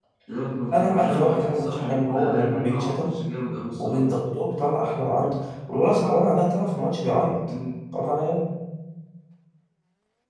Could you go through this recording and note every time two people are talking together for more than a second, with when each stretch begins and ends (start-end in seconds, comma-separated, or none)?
0.7-3.1